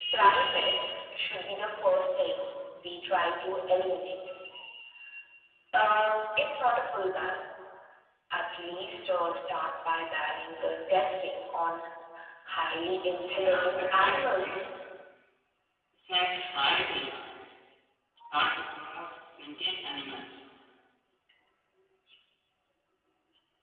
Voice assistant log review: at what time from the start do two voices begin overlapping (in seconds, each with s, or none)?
13.4 s